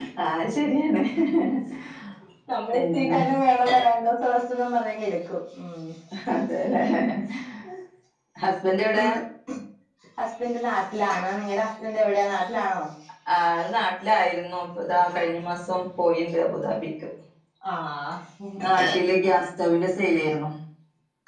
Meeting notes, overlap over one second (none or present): none